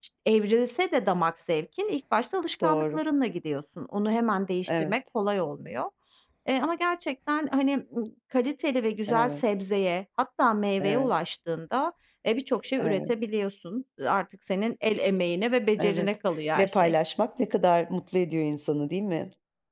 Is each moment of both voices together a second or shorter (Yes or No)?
Yes